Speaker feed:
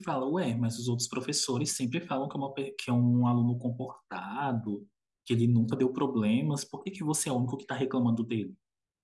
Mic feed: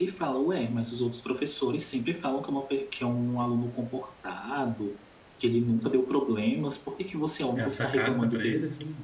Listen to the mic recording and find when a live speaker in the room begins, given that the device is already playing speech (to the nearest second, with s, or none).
8 s